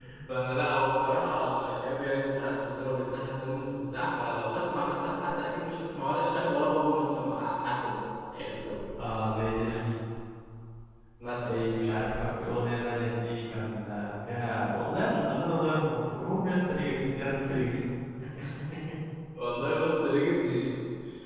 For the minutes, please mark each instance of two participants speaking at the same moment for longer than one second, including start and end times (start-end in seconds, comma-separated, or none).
none